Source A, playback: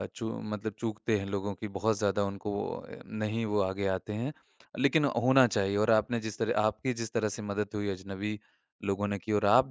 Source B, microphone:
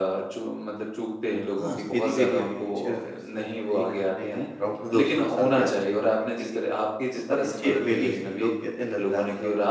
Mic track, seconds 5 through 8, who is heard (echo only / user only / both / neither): both